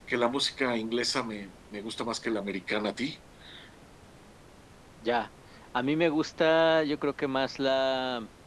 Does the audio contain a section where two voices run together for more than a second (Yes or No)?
No